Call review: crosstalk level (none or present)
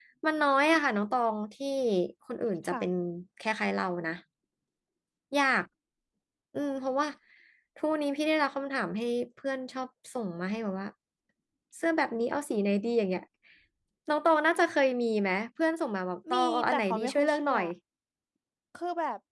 present